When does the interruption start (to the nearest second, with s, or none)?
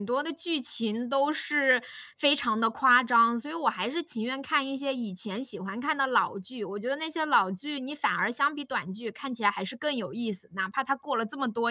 none